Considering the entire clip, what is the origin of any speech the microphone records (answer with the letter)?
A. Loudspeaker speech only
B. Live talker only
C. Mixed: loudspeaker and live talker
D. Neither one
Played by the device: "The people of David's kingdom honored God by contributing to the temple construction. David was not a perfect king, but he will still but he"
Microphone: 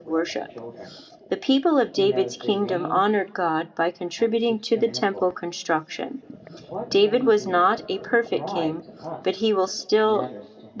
C